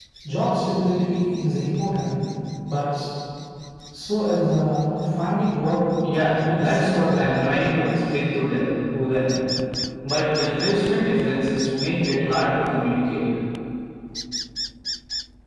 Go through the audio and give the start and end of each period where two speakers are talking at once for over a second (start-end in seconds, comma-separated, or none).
6.2-7.5